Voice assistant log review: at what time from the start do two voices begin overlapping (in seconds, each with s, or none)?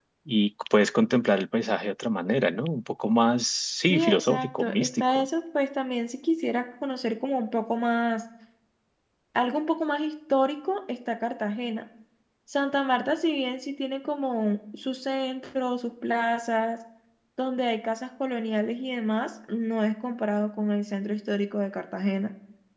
3.9 s